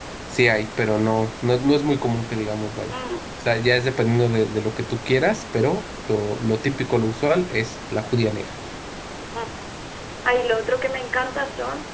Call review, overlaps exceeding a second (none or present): none